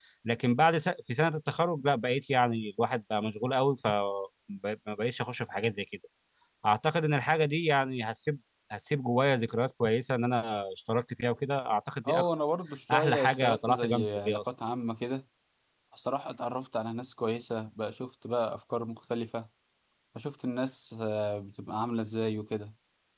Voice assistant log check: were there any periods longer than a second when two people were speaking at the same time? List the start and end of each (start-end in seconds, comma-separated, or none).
12.9-14.4